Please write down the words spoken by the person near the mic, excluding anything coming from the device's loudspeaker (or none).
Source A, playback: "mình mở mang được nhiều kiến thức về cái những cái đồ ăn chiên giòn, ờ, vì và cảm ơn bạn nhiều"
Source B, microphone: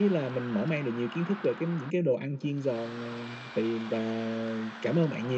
none